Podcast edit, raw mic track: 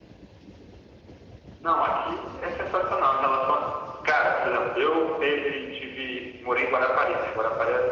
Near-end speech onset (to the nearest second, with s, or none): none